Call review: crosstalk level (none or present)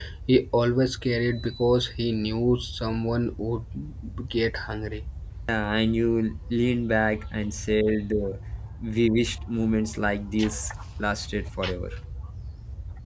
none